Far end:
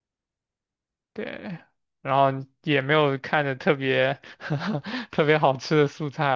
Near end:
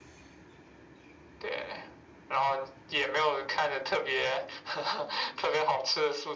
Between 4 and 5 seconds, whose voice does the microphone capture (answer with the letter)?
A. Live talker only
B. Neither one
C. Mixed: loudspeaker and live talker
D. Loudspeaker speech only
D